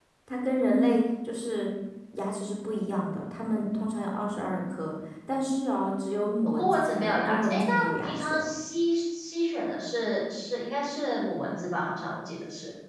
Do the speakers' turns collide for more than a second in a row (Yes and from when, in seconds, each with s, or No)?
Yes, from 6.6 s